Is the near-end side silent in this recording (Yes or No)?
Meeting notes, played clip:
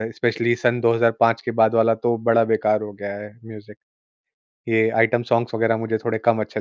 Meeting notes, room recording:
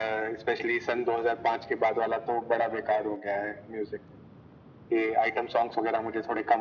Yes